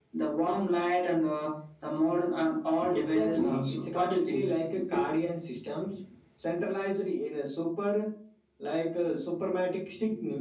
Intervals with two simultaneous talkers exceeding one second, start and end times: 2.9-4.5

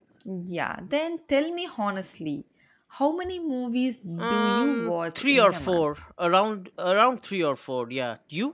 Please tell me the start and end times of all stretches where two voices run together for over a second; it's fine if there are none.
4.2-6.0

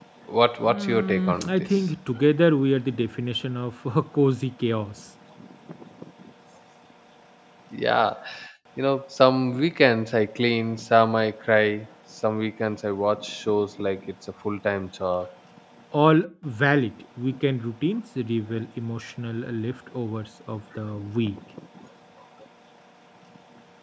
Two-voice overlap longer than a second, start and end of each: 0.6-1.8

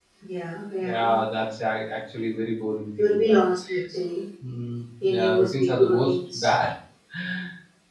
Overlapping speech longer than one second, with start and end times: 5.0-6.6

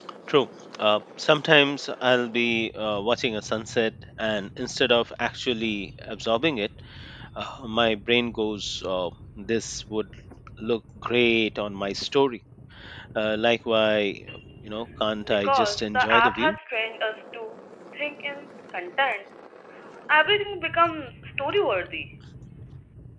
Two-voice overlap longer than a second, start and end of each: 15.3-16.6

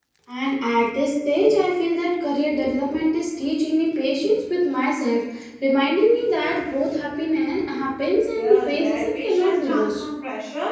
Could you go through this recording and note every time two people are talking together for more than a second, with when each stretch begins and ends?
8.3-10.0

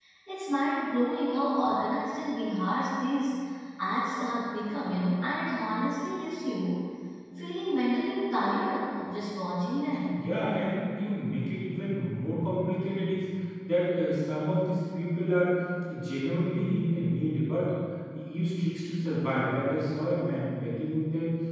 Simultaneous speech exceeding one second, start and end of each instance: none

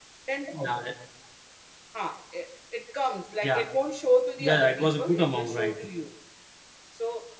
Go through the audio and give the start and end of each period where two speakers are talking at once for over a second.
4.4-5.8

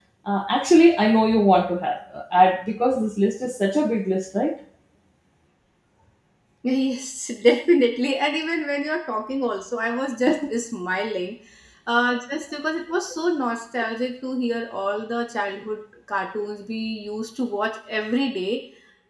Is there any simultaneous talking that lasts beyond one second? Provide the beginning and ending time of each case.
none

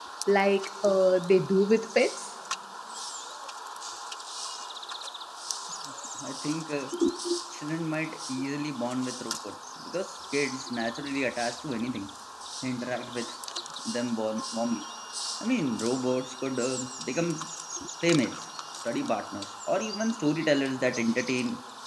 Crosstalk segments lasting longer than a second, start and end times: none

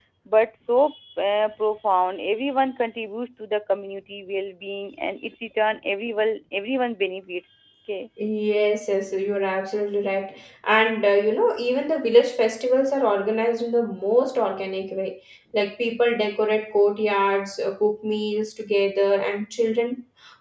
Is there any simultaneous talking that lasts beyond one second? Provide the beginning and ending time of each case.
none

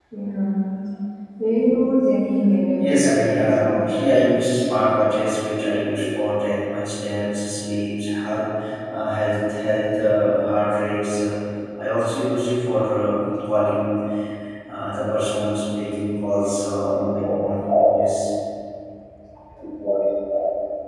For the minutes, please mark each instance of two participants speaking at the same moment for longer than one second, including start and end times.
2.8-4.6

